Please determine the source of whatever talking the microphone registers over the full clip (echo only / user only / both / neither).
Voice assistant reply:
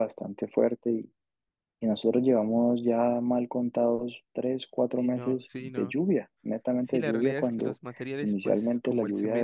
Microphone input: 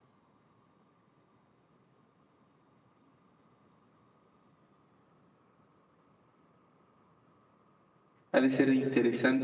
user only